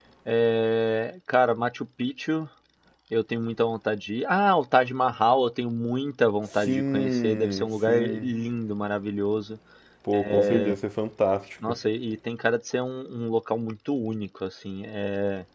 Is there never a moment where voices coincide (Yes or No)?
No